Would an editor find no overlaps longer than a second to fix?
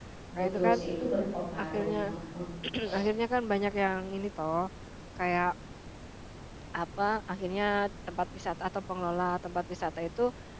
Yes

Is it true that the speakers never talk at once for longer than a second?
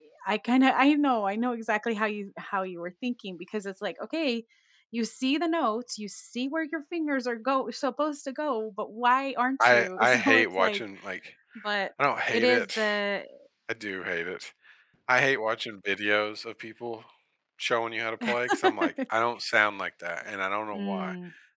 No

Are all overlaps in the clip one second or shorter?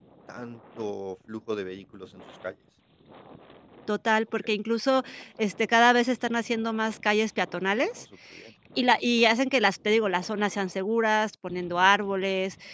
Yes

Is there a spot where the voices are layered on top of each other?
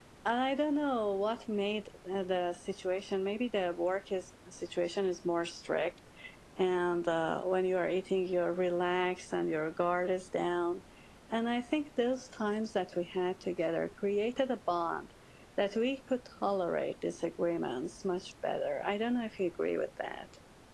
No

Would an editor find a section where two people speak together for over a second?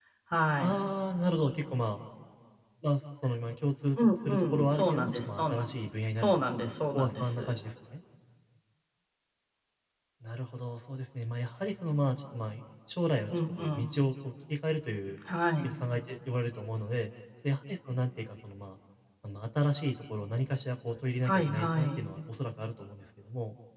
Yes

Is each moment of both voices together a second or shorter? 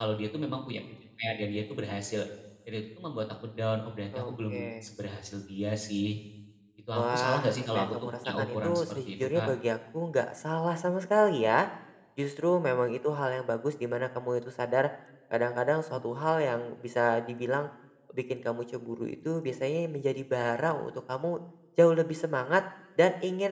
No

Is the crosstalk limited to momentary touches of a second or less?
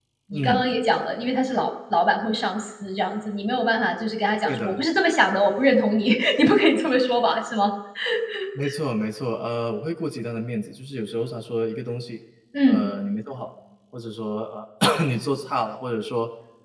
Yes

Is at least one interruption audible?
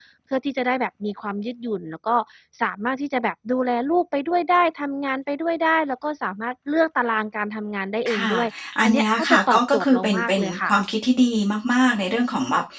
Yes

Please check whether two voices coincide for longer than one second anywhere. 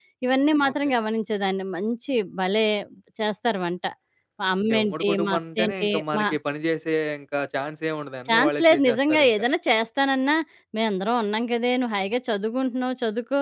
Yes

